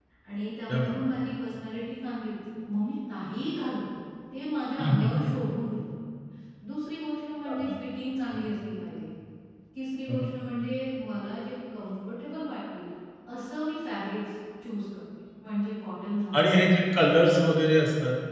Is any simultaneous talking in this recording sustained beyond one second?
No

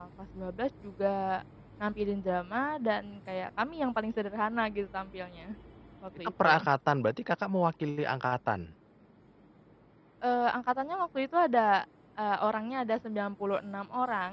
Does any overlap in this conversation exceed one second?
No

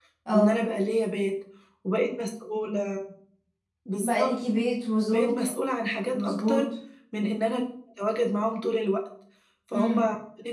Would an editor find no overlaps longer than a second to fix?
Yes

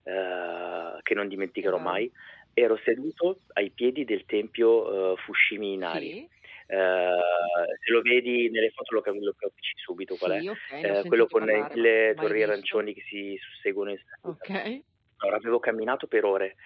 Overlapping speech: Yes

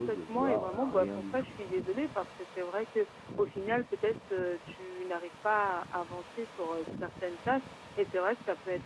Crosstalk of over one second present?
Yes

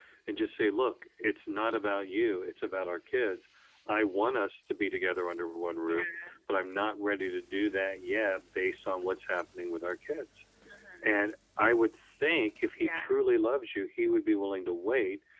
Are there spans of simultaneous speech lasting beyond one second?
No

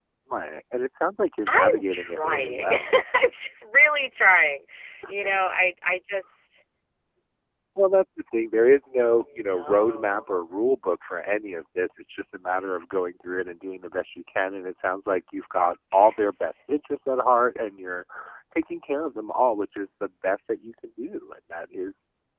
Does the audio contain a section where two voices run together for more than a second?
Yes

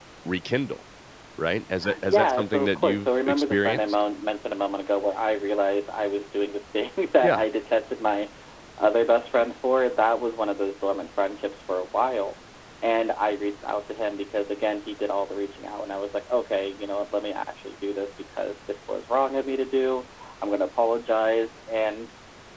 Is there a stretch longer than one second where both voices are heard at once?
Yes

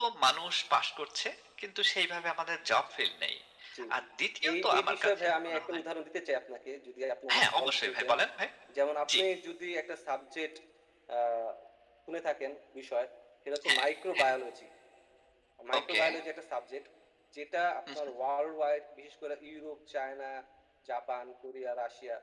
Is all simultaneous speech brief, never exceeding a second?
No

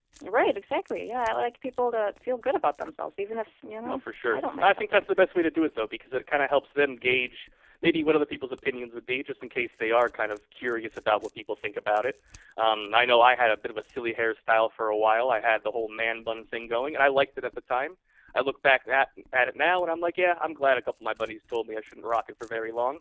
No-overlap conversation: No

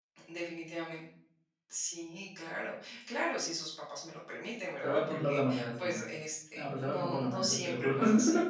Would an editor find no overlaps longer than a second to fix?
No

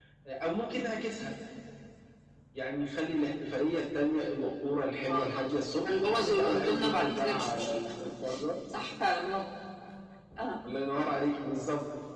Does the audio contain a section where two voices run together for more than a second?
Yes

